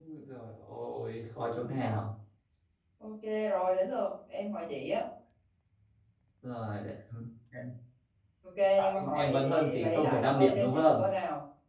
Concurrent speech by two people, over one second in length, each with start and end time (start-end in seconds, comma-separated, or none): 8.9-11.0